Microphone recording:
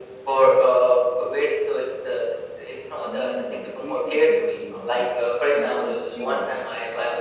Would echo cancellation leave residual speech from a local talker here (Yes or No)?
Yes